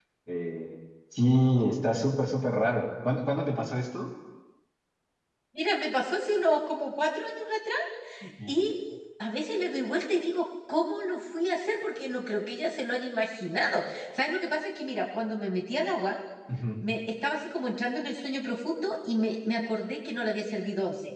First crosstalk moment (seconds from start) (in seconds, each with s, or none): none